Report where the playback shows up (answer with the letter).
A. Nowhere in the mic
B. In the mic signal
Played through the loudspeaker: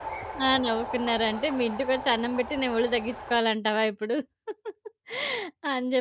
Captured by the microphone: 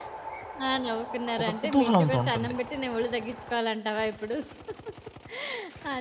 B